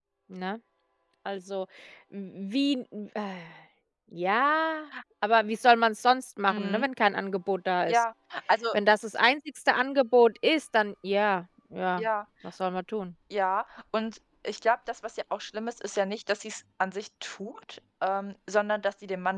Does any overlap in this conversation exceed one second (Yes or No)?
No